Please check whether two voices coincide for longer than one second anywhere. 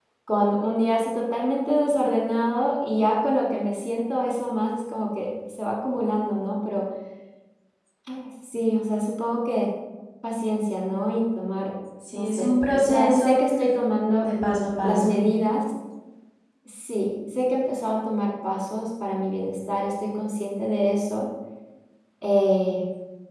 Yes, from 12.1 s

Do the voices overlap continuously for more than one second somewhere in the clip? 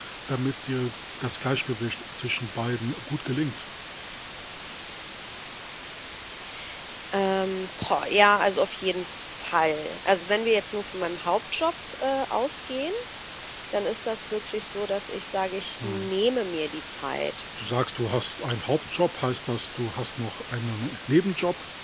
No

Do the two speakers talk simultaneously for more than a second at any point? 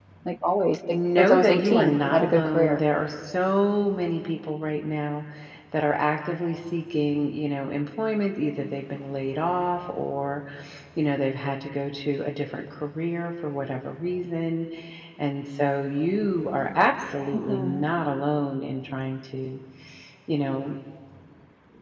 Yes, from 1.2 s

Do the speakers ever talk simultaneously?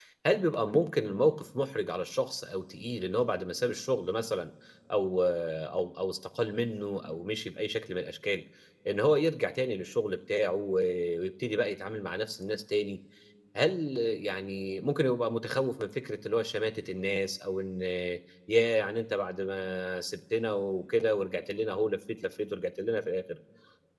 No

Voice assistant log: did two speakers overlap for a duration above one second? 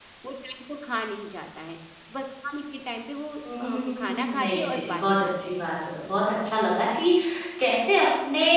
Yes, from 3.4 s

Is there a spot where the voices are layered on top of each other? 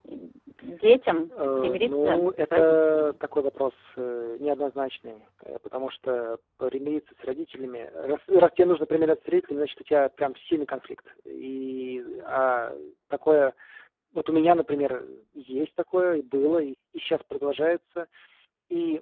Yes, from 1.3 s

